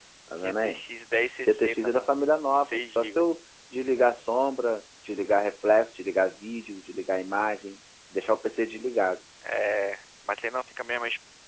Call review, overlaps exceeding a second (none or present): present